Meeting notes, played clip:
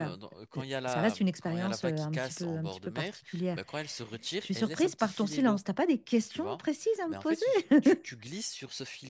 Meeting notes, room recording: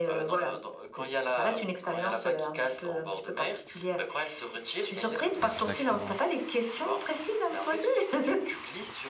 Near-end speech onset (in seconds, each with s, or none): 5.4 s